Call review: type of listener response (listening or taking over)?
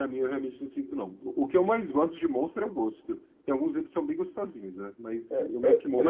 taking over